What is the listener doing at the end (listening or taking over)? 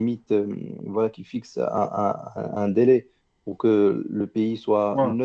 listening